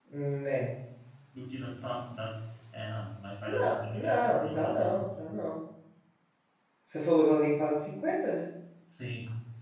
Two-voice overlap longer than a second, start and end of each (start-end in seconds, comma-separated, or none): 3.5-5.2